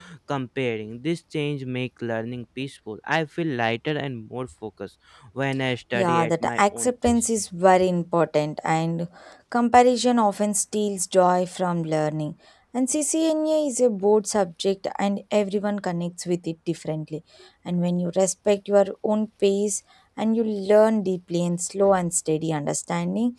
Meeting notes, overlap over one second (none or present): present